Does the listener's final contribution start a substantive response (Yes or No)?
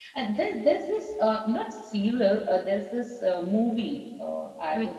No